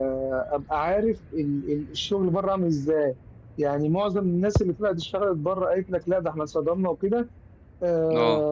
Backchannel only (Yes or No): Yes